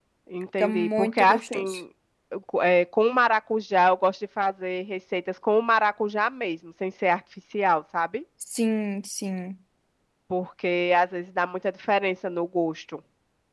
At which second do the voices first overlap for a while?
1 s

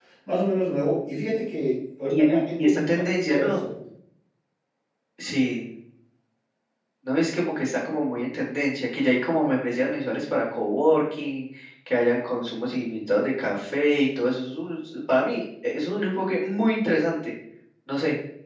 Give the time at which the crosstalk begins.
2 s

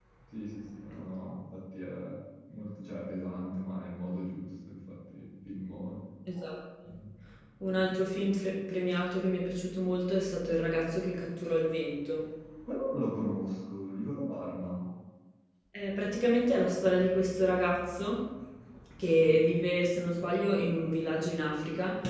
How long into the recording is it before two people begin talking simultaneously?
none

